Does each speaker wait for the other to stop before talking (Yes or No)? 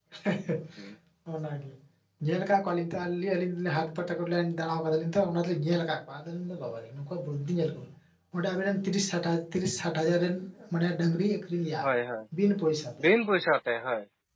Yes